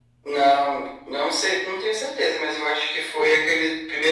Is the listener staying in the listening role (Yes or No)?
Yes